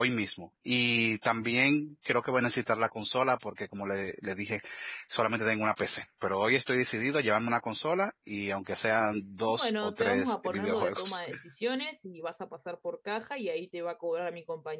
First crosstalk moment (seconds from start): 10 s

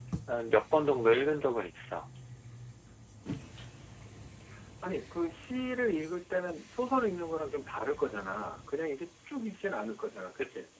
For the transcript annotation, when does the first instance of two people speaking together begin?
none

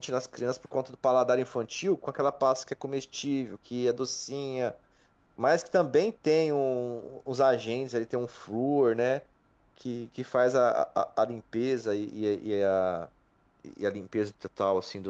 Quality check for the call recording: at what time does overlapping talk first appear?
none

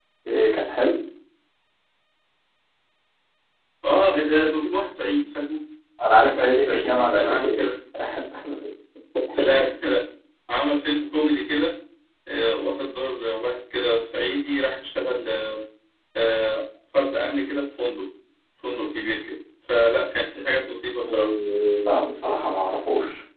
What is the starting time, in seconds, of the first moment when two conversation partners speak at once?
6 s

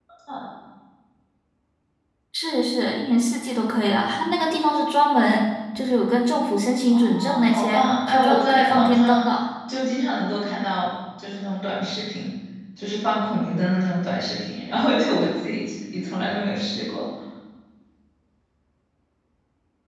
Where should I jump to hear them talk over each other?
7 s

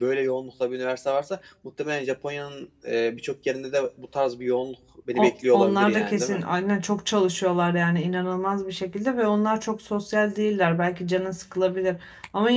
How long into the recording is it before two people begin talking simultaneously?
5 s

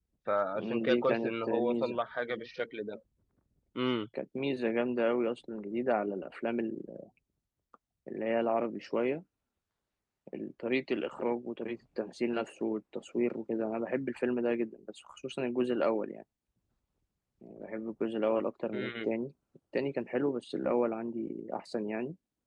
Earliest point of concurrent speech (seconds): 1 s

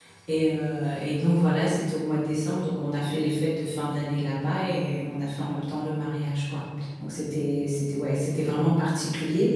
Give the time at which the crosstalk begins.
none

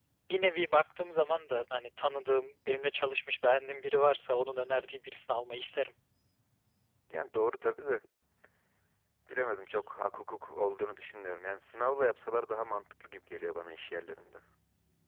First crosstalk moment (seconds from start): none

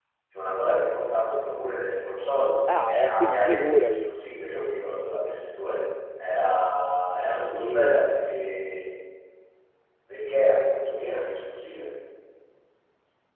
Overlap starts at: 3 s

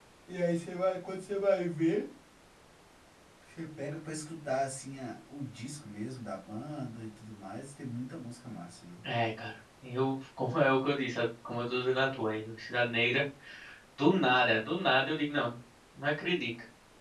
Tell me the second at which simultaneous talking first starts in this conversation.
none

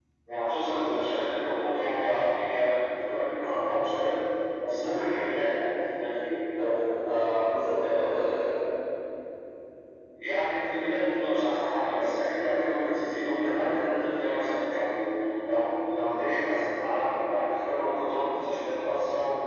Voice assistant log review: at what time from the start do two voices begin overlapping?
none

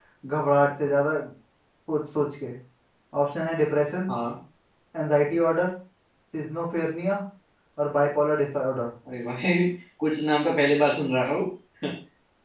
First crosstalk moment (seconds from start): none

